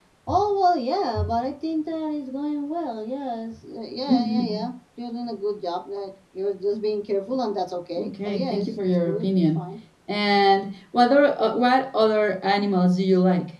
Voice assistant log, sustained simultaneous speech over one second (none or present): present